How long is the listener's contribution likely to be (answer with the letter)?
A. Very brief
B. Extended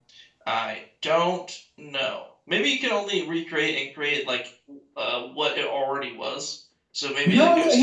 B